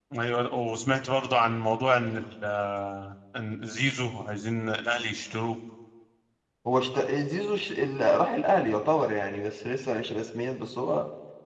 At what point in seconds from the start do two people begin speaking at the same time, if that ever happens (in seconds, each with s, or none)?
none